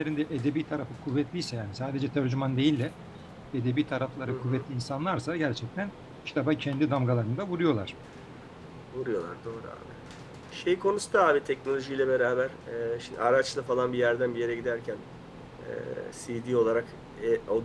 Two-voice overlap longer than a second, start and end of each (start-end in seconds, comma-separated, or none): none